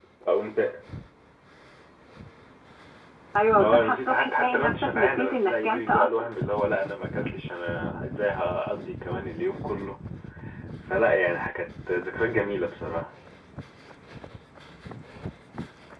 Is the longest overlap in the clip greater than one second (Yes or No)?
Yes